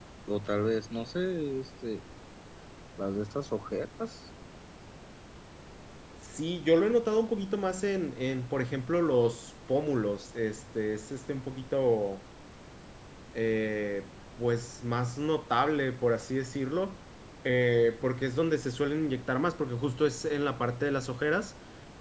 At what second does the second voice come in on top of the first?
none

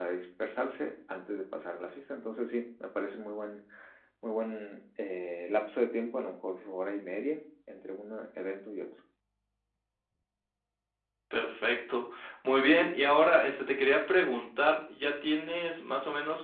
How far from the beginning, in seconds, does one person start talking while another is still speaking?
none

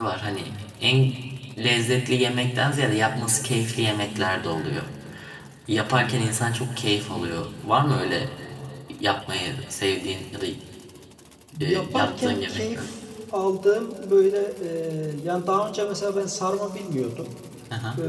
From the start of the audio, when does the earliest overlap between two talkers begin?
11.7 s

